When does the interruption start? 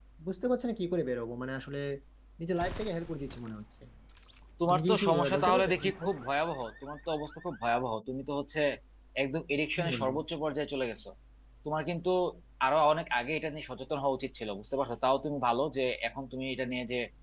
4.7 s

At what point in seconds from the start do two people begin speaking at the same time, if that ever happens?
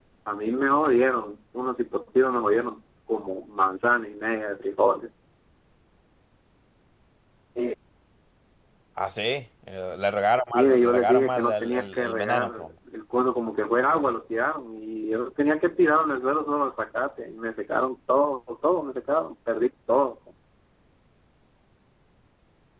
10.5 s

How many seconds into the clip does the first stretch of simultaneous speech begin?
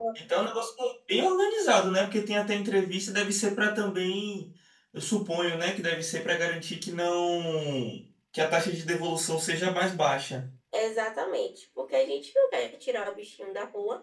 none

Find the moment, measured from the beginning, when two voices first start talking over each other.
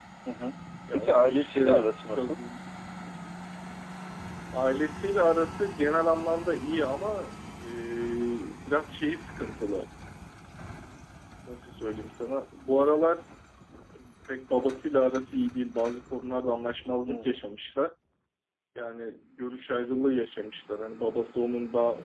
0.9 s

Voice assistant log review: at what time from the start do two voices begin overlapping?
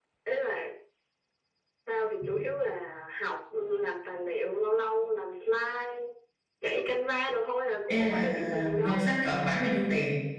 7.9 s

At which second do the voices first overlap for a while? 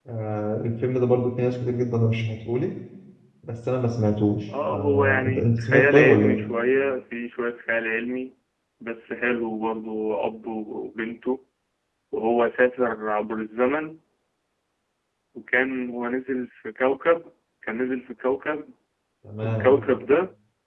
4.7 s

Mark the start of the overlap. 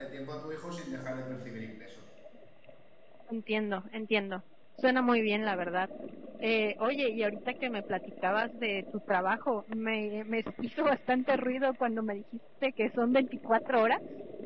none

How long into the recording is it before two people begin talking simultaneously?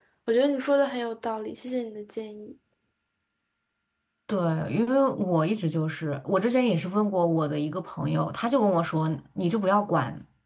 none

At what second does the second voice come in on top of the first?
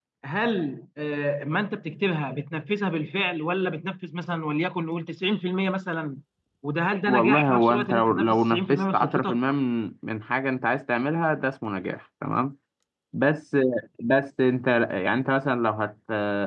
7.1 s

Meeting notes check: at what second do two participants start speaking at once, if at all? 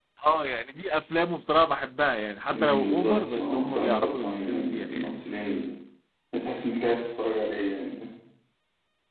2.5 s

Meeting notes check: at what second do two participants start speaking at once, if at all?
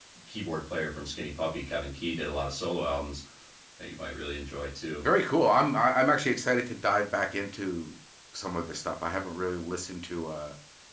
none

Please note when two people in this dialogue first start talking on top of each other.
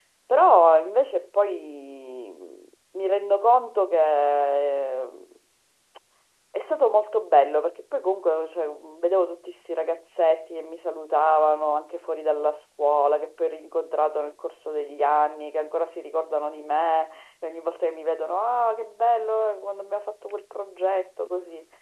none

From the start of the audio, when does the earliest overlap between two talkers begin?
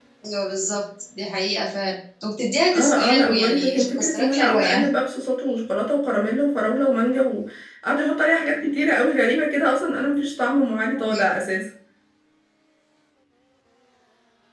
2.7 s

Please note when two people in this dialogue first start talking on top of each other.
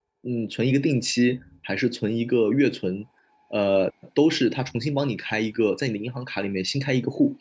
none

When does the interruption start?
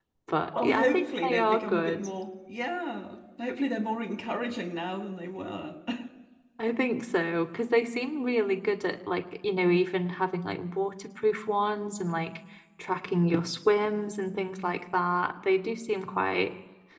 0.6 s

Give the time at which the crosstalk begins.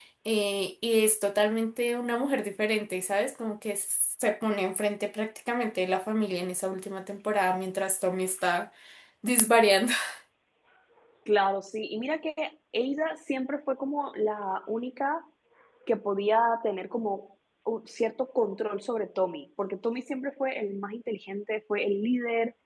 none

